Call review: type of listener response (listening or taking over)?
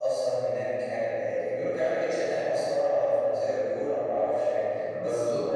listening